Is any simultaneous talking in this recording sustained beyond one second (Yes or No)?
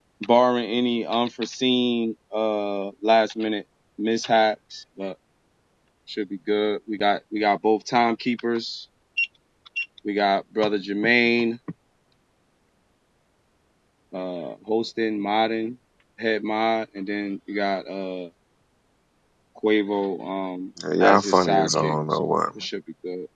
Yes